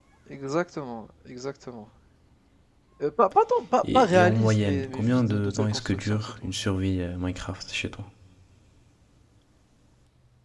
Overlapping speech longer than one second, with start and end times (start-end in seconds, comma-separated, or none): 3.8-6.3